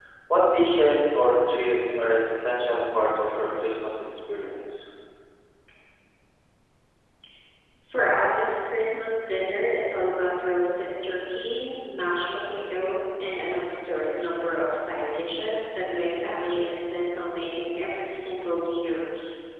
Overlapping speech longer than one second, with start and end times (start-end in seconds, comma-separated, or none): none